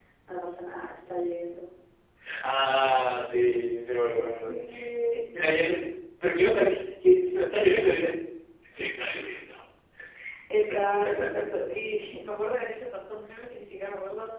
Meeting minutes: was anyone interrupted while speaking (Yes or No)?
Yes